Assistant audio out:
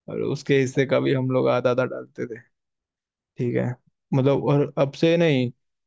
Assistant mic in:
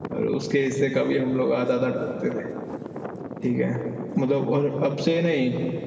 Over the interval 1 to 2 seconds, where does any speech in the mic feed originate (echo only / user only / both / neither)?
echo only